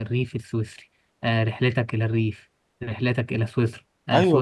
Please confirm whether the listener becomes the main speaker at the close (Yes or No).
No